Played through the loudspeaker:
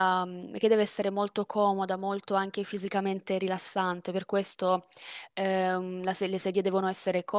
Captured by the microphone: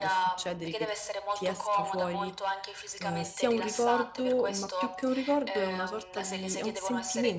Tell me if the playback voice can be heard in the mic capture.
Yes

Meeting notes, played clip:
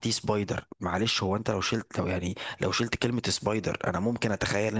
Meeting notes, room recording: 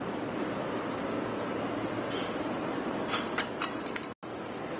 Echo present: No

